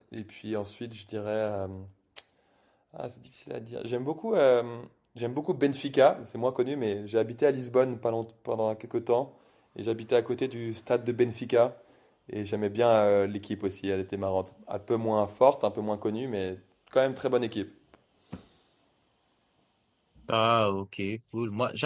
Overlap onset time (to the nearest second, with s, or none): none